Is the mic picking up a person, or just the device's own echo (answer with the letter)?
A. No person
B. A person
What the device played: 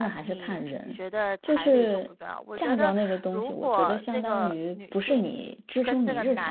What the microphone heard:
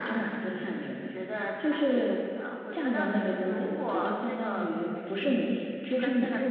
A